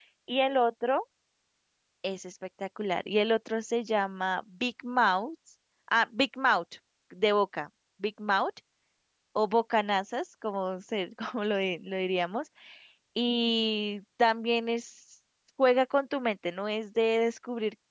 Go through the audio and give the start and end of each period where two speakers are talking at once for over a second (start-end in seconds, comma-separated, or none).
none